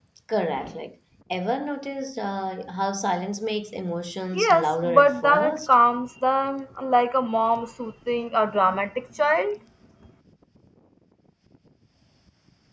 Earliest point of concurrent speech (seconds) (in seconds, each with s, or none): 4.3 s